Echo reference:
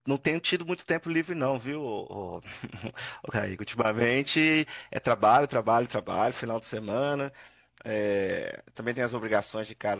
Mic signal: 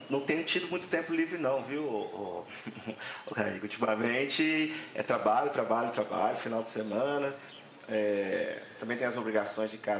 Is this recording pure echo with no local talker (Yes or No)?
Yes